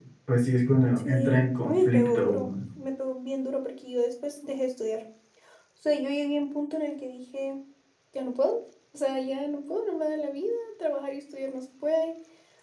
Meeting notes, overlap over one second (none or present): present